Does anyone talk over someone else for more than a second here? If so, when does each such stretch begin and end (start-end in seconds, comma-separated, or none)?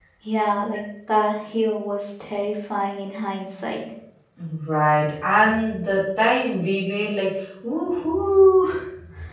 none